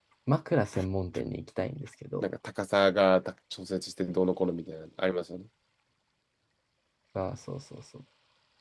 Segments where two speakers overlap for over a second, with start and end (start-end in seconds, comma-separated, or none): none